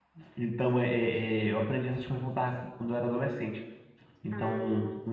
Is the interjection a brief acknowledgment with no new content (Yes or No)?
Yes